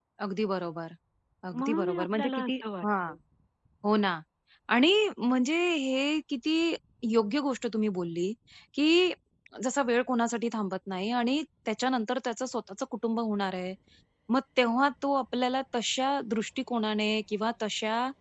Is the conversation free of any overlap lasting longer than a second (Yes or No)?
No